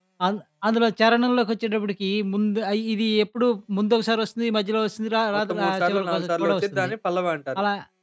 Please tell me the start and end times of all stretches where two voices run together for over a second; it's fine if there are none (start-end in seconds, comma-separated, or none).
5.3-6.9